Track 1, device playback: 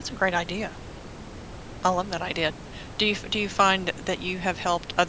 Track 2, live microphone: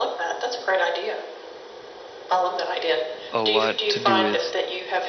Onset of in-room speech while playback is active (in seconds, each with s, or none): 3.3 s